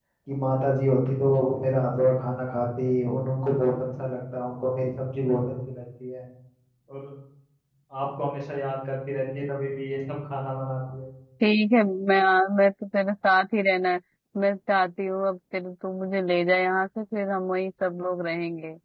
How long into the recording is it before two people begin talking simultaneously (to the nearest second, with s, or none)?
none